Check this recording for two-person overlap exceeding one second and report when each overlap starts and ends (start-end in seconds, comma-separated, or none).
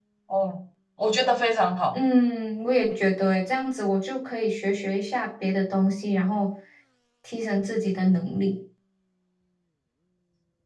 none